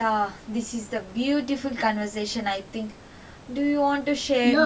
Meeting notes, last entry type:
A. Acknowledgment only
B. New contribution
B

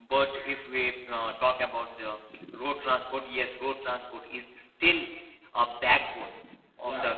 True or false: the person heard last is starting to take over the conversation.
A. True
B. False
B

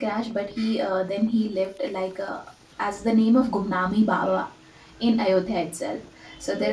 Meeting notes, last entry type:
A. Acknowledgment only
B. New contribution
A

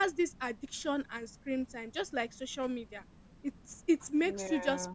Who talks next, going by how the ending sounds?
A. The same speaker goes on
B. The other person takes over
A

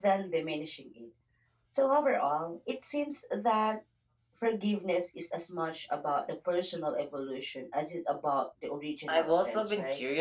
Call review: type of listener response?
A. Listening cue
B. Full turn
B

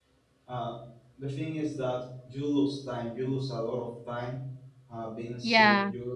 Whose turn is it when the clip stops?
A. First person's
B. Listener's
A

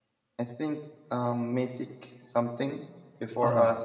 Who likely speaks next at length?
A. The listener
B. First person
B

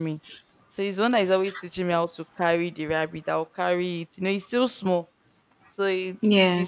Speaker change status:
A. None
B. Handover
A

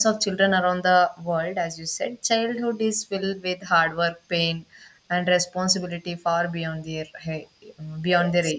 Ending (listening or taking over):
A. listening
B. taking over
A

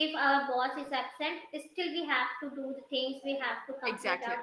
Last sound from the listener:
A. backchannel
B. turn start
A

